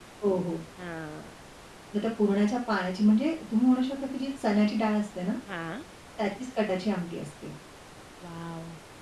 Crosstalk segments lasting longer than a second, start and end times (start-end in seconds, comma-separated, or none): none